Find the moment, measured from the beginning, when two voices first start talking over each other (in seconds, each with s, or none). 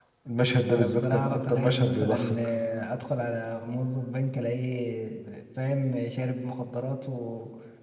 0.8 s